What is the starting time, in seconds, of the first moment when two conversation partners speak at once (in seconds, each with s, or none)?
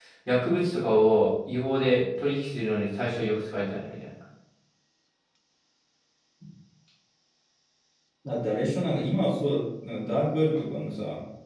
none